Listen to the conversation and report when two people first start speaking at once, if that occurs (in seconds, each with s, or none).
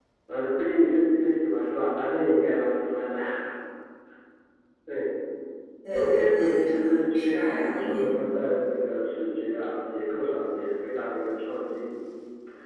5.9 s